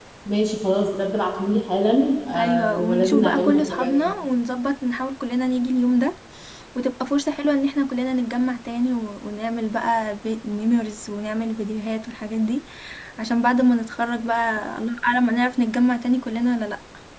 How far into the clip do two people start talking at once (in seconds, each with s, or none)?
2.3 s